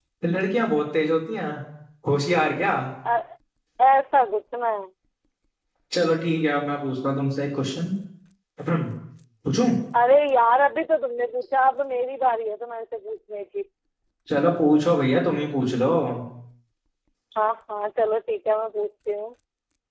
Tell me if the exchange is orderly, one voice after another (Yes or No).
Yes